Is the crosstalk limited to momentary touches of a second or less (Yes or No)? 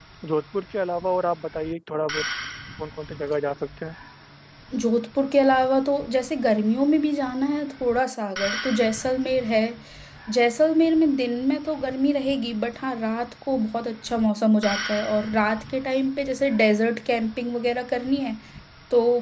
Yes